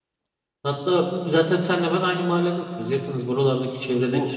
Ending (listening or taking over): taking over